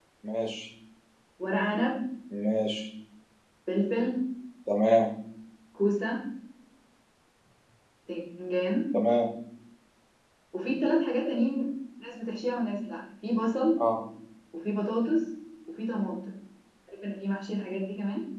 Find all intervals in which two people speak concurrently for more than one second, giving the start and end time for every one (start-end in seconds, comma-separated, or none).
none